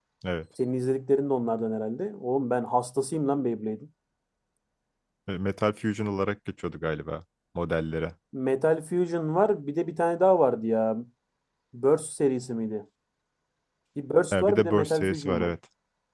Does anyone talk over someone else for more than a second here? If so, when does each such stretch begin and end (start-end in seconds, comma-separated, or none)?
14.3-15.5